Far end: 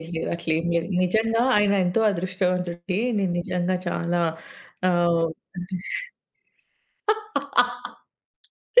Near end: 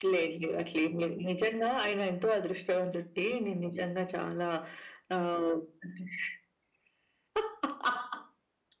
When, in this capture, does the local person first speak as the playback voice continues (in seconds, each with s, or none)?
none